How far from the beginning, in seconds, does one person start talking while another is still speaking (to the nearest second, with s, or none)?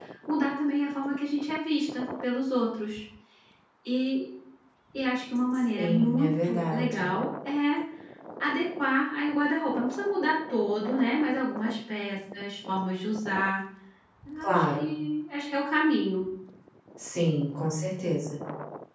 6 s